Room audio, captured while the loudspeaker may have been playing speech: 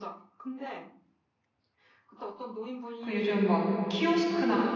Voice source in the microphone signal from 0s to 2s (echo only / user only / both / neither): echo only